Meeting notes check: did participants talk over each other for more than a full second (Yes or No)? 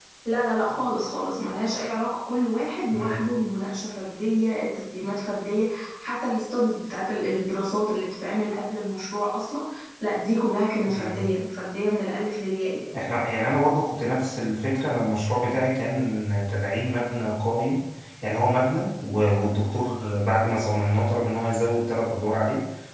No